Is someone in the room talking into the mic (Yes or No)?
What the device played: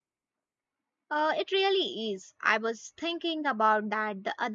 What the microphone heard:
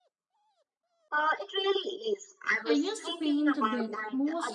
Yes